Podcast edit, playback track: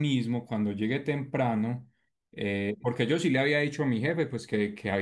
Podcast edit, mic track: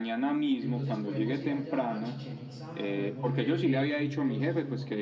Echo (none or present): present